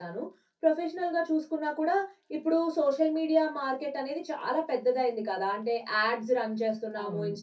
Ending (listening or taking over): listening